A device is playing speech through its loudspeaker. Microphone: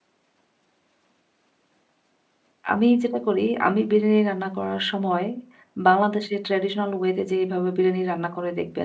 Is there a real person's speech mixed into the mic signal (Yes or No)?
Yes